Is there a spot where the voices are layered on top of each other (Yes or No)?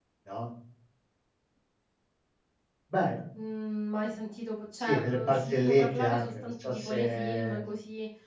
Yes